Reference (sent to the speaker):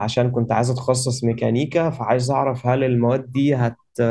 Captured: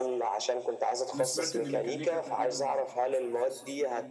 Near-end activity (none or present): present